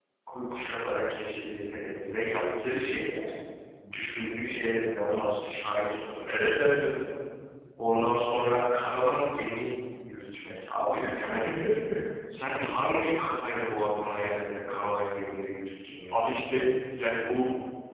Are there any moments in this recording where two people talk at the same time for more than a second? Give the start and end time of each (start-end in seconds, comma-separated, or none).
none